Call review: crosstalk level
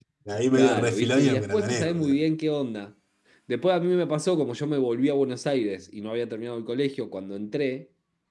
present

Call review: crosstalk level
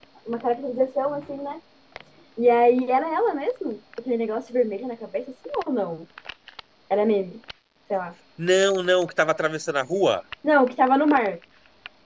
none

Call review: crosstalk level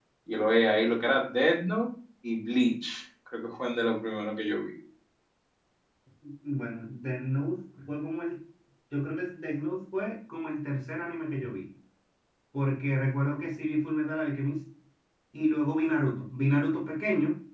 none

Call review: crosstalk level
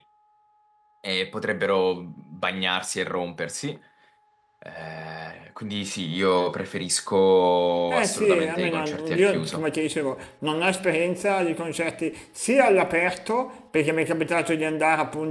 present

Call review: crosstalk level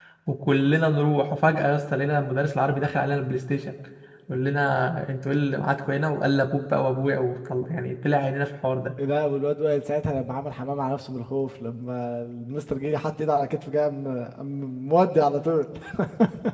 none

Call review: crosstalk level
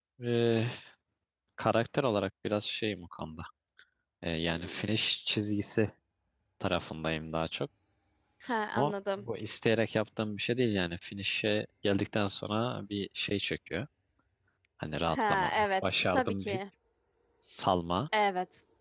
present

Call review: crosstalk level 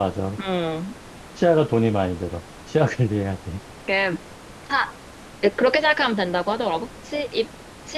none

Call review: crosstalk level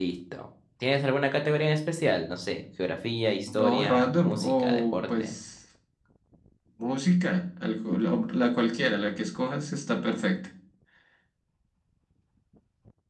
present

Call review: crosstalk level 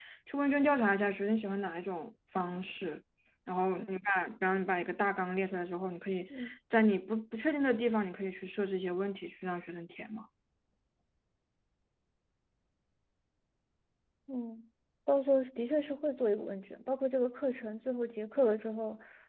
none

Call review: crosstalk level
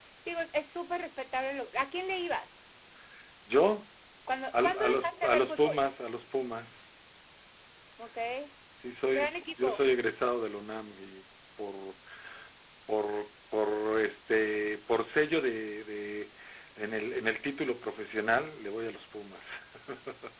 present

